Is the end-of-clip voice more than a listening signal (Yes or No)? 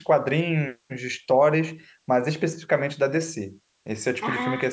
No